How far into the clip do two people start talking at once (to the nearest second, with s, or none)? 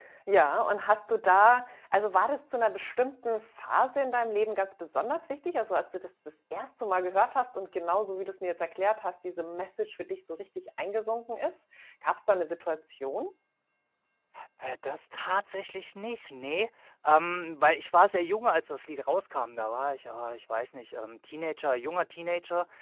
none